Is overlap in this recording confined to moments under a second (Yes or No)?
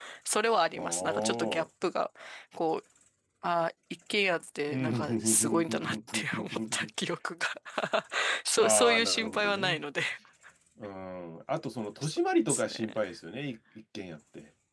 No